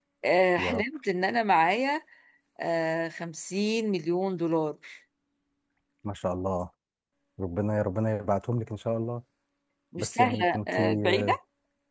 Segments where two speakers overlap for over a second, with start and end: 10.0-11.4

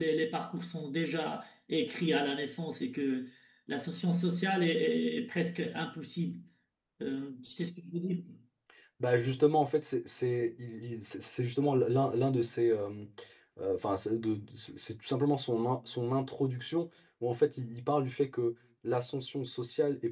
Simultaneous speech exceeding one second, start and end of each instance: none

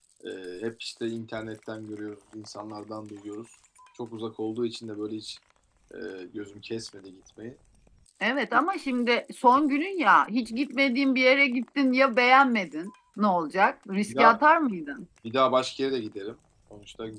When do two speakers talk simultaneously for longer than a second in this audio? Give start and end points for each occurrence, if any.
none

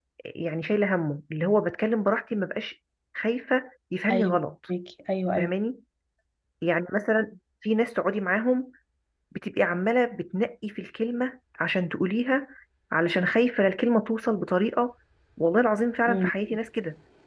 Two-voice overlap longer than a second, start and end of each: none

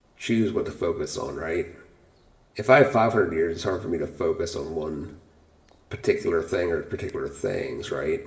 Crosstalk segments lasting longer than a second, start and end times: none

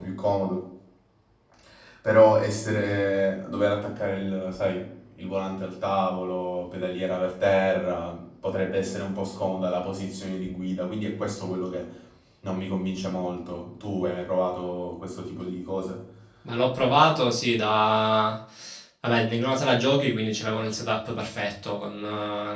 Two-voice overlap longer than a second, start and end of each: none

